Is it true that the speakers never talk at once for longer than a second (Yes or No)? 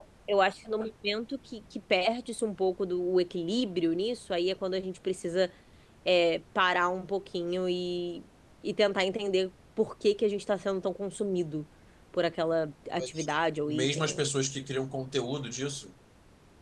Yes